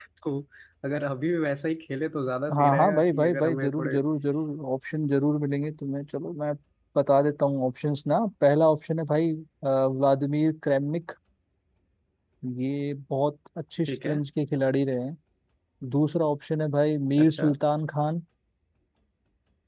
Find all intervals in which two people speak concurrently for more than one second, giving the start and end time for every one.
2.5-4.0

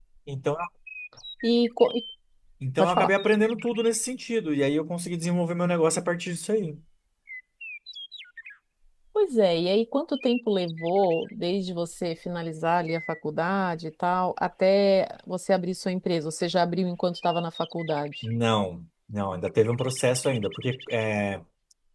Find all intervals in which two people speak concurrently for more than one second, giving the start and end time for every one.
none

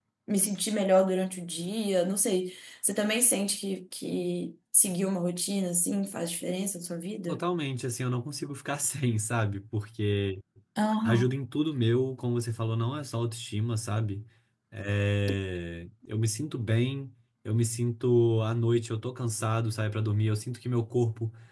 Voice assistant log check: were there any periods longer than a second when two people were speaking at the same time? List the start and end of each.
none

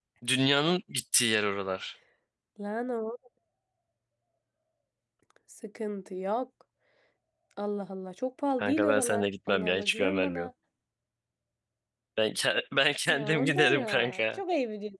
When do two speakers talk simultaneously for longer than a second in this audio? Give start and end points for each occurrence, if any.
8.6-10.5, 13.1-14.4

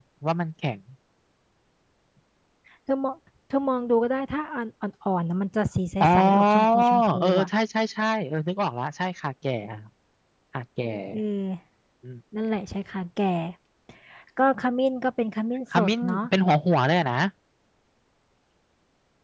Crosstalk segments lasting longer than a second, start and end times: 6.0-7.5

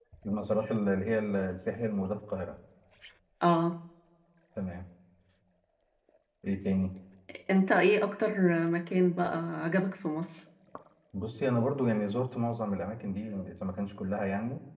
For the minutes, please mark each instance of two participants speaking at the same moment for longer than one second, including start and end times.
none

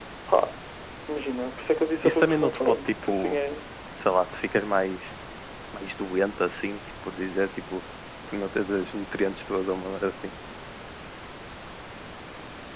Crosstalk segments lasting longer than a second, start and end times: 2.0-3.4

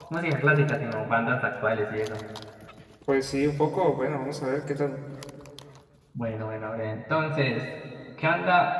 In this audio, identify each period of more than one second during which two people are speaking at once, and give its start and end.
none

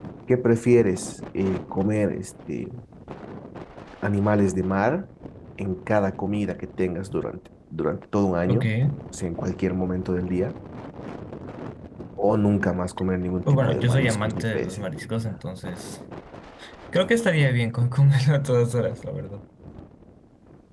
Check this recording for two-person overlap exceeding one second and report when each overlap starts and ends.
13.5-15.4

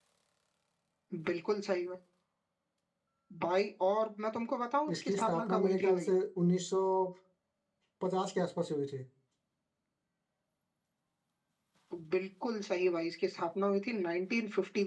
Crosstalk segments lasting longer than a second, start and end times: 4.9-6.1

